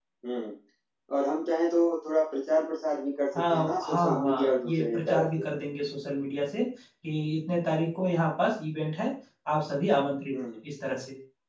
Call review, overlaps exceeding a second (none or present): present